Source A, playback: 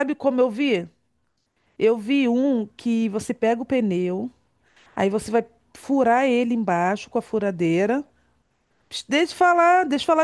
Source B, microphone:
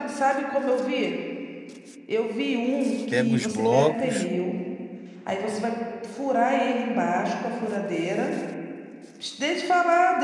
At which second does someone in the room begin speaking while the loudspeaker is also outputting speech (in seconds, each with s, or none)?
3.1 s